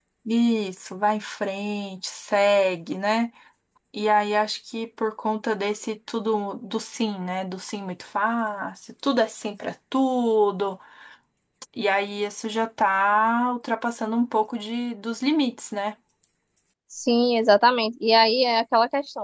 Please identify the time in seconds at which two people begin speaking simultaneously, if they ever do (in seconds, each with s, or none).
none